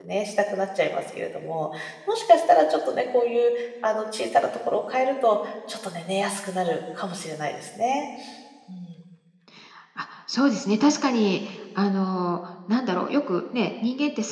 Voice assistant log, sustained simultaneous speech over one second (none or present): none